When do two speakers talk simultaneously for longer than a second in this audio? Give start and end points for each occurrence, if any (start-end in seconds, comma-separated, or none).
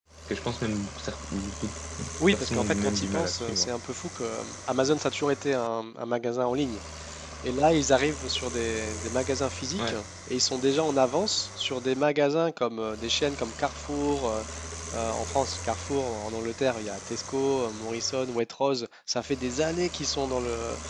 2.3-3.7